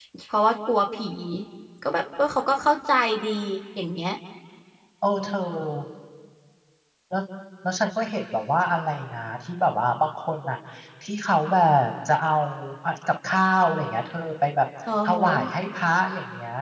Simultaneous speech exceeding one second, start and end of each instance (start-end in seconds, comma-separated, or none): none